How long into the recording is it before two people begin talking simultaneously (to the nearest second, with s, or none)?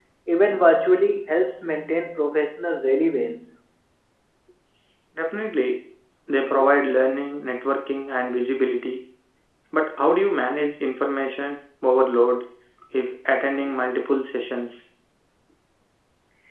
none